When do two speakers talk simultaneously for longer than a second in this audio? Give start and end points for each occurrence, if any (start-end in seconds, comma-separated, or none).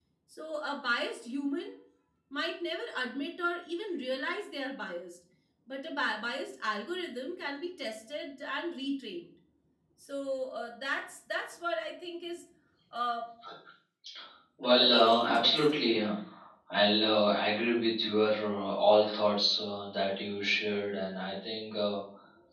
14.6-15.9